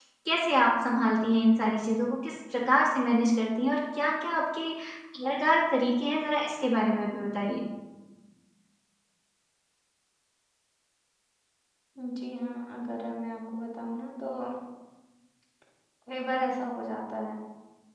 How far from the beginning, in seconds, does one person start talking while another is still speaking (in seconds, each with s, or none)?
none